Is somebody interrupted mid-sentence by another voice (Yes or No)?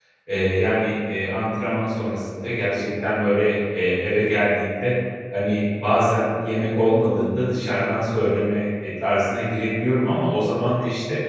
No